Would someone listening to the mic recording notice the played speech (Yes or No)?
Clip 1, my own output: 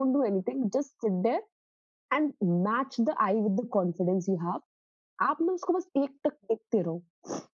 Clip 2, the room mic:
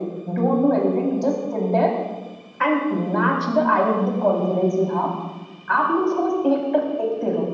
Yes